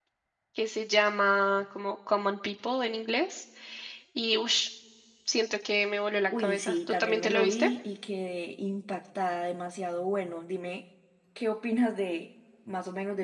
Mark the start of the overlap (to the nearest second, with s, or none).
6 s